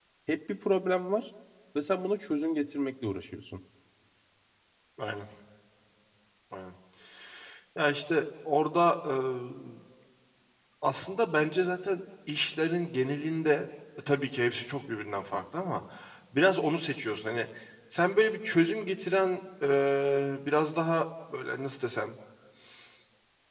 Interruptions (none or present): none